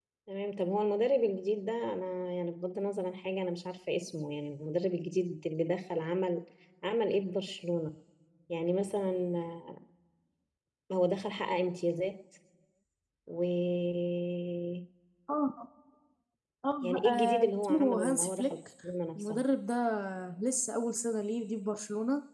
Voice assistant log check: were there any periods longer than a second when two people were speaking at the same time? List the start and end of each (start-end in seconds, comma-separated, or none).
17.1-18.5